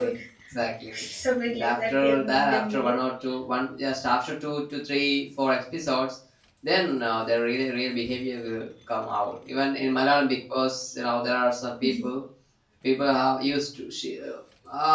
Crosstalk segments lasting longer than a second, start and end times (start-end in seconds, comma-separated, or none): 1.5-2.9